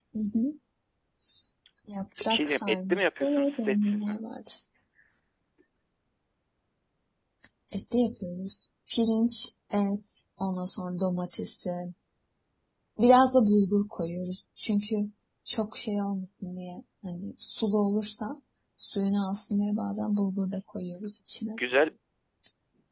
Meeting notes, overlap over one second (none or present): present